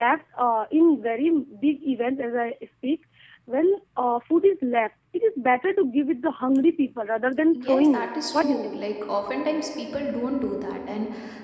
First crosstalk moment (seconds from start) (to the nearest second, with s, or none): 8 s